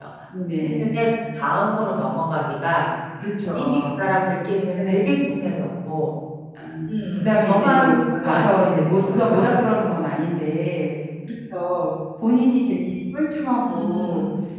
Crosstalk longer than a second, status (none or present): present